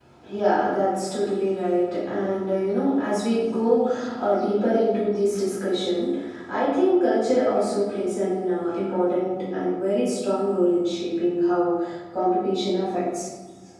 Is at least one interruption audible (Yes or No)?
No